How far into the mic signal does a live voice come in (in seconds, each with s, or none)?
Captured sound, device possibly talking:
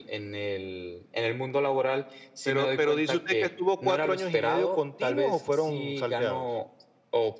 none